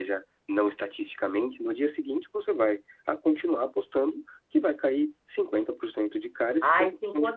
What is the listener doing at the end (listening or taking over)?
taking over